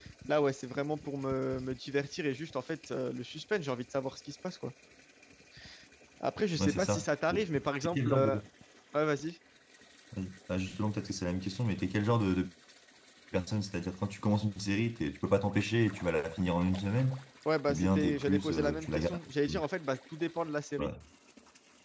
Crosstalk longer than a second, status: present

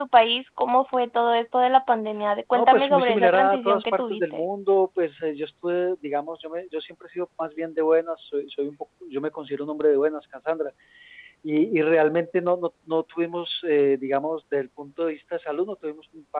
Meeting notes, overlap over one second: present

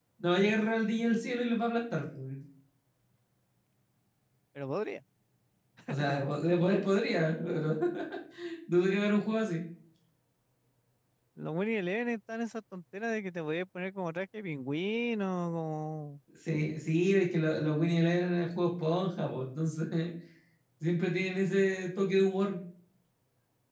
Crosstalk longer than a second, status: none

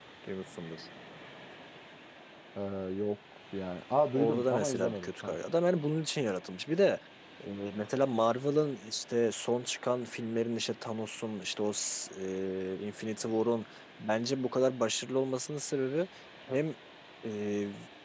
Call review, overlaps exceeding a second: present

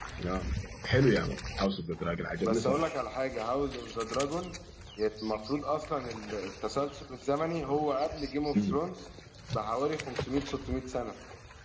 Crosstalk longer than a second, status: none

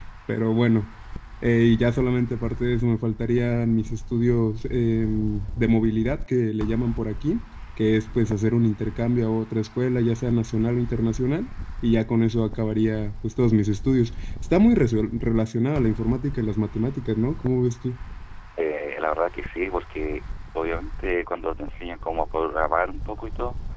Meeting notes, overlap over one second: none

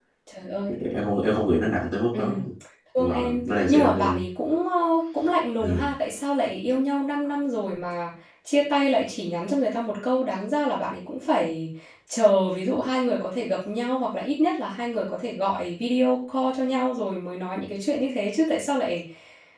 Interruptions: present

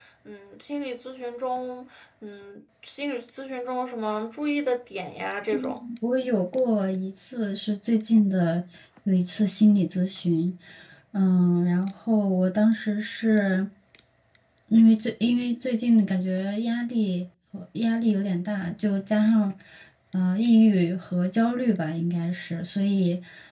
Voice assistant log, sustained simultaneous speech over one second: none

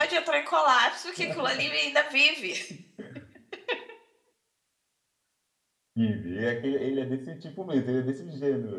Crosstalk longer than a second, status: none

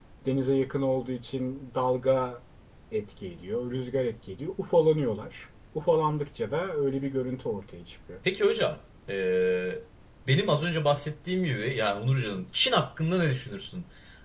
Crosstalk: none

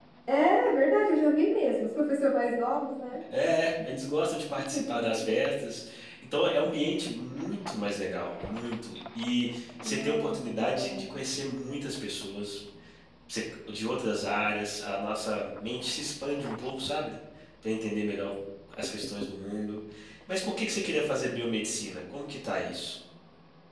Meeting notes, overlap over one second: present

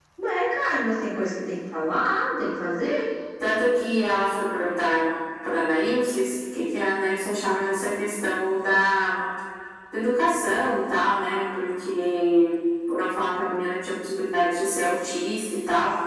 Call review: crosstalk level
none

